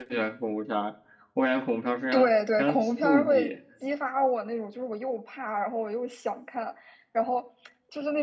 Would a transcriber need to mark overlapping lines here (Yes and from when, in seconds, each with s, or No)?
Yes, from 2.1 s